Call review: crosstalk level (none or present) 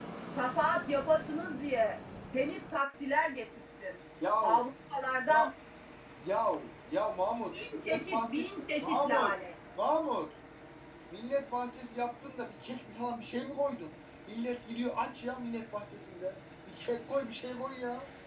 present